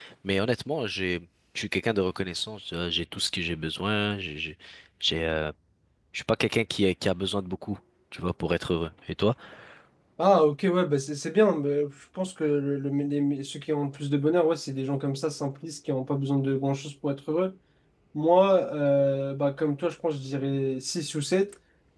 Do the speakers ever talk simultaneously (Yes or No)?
No